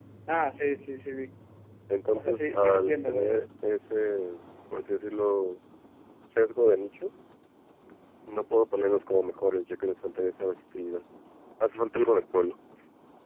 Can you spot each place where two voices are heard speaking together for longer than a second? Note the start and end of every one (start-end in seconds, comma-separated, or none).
2.1-3.4